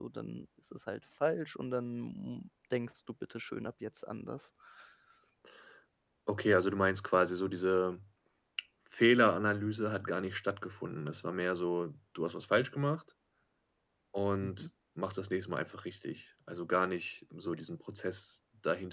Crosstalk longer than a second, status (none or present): none